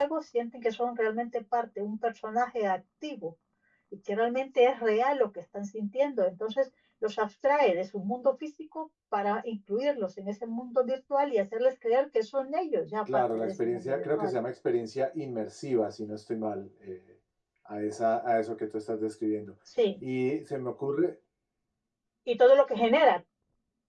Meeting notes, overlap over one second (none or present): present